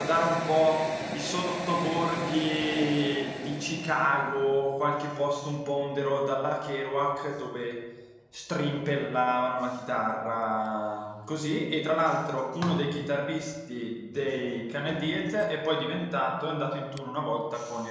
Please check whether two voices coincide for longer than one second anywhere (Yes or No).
No